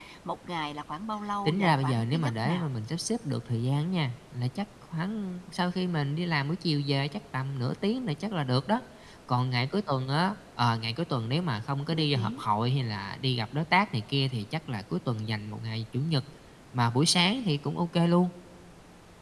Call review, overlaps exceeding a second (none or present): present